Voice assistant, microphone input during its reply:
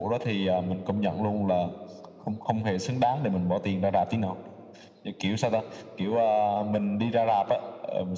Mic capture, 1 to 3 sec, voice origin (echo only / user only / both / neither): echo only